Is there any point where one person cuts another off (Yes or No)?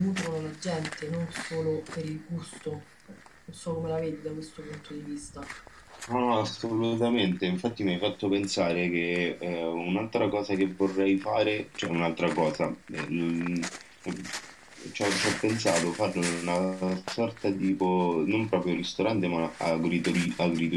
No